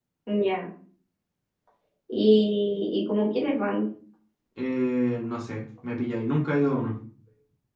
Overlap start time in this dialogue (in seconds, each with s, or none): none